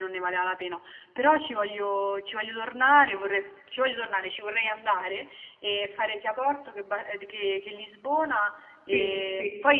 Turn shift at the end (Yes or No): No